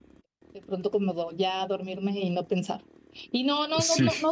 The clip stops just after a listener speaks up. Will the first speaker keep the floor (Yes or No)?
Yes